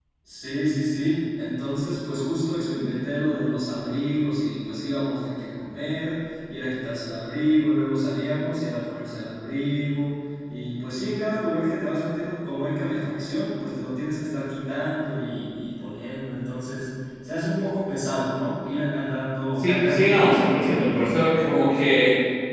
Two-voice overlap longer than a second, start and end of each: 19.6-20.8

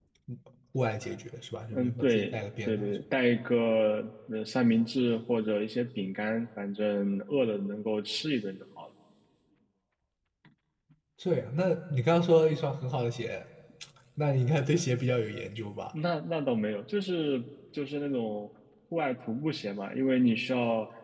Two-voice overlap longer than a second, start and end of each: 1.7-3.0

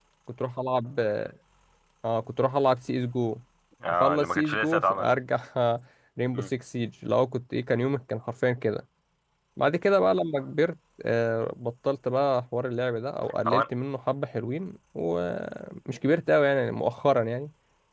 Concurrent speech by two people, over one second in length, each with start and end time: 3.9-5.1

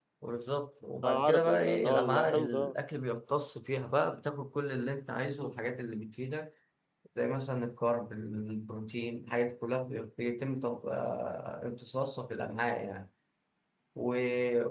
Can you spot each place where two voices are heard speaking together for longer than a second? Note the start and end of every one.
1.0-2.7

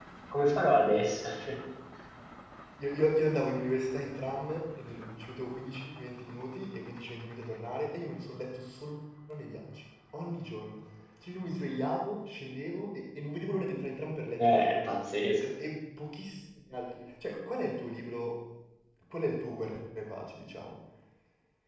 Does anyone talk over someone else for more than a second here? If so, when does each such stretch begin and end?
none

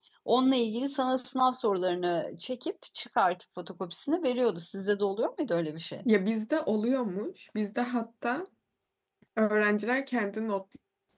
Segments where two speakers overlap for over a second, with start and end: none

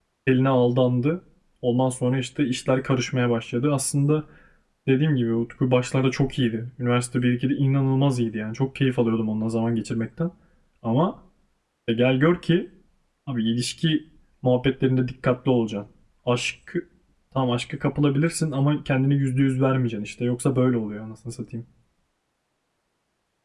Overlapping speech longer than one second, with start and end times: none

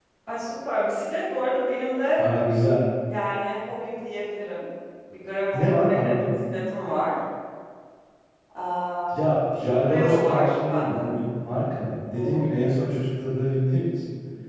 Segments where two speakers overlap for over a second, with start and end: 9.9-11.2

